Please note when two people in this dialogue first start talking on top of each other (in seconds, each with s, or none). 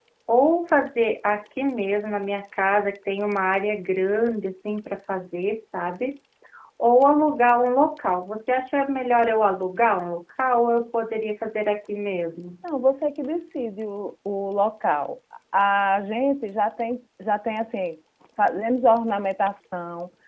none